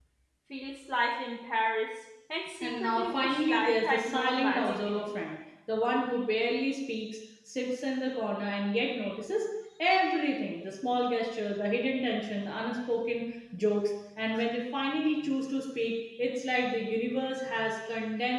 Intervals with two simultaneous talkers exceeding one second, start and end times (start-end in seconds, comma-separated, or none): 2.6-5.1